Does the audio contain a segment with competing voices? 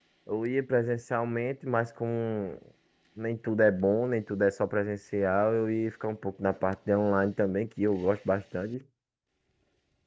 No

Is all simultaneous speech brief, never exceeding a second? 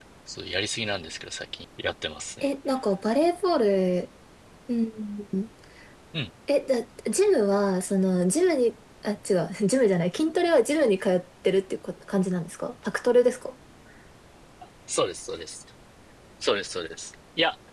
Yes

